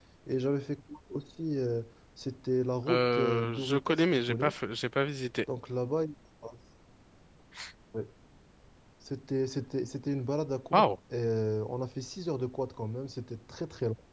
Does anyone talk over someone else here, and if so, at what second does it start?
2.9 s

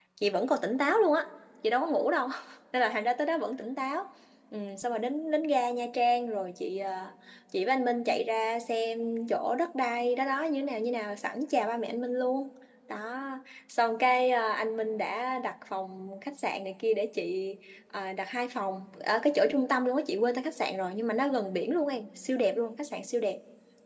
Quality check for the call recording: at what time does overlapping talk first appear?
none

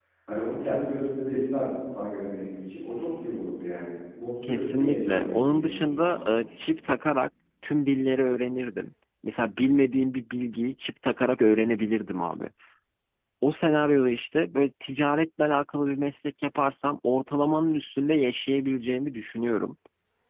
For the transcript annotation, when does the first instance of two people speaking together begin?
4.4 s

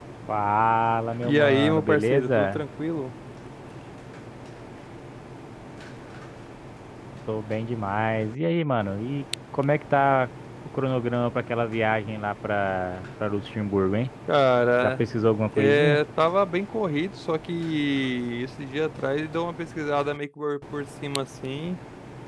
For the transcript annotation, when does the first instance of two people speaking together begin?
1.2 s

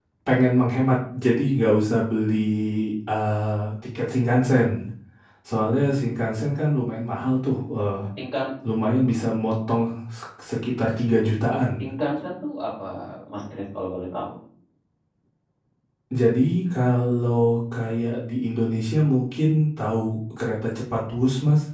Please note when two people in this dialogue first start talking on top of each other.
none

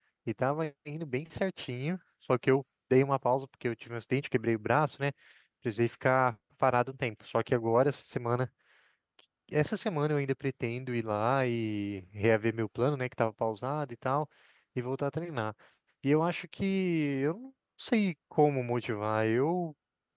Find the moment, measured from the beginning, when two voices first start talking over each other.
none

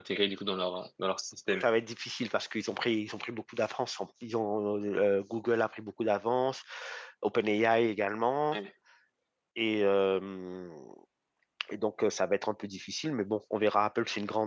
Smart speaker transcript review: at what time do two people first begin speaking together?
none

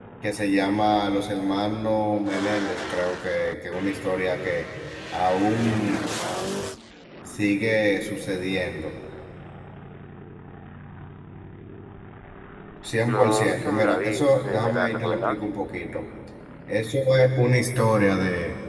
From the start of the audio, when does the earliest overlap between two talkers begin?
13.1 s

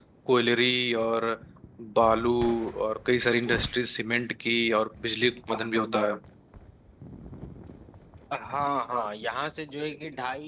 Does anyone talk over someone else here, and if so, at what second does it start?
none

